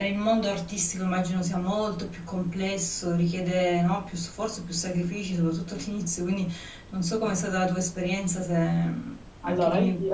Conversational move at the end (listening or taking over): taking over